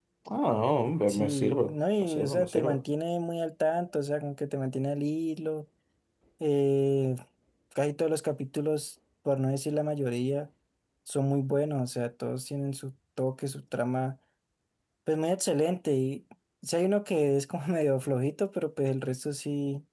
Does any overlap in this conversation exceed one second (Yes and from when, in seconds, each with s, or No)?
Yes, from 1.1 s